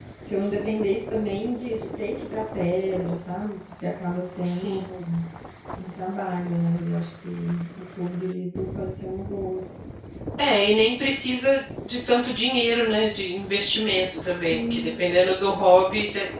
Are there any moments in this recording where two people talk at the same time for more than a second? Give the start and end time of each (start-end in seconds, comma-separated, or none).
none